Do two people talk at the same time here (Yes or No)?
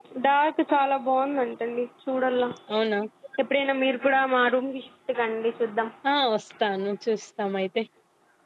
No